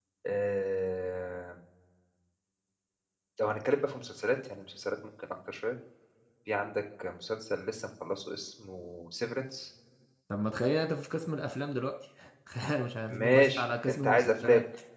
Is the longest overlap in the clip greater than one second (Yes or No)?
Yes